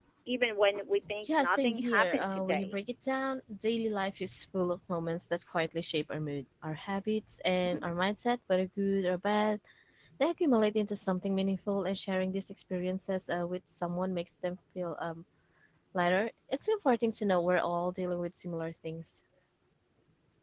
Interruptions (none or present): present